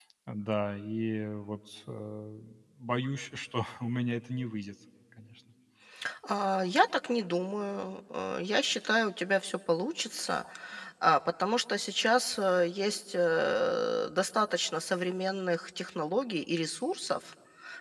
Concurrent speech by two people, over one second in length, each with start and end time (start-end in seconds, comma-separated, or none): none